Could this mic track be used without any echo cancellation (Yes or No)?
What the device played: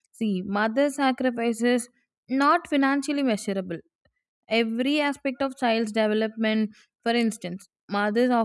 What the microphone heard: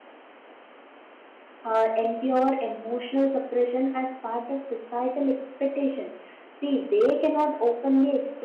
Yes